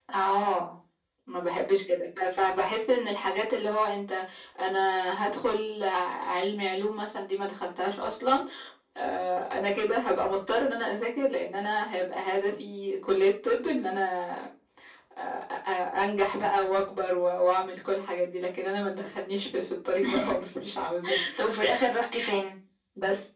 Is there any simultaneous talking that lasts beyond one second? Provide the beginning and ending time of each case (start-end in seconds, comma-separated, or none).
none